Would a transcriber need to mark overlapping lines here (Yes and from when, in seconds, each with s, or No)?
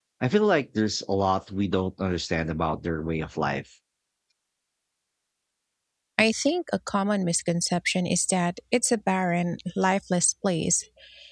No